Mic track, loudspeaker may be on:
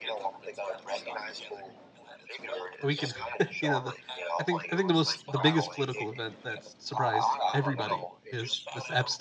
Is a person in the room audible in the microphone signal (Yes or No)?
Yes